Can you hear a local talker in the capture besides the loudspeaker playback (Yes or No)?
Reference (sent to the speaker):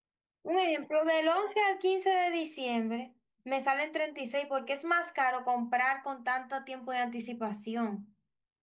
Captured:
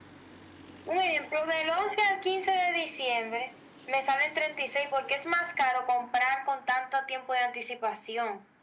No